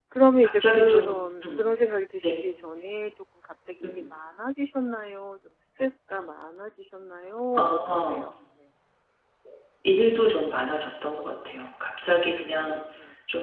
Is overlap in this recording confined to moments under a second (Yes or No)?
No